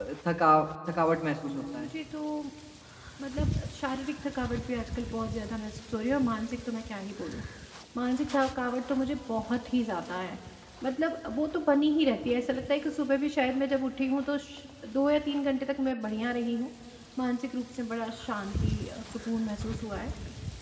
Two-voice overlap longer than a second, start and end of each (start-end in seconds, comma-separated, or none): none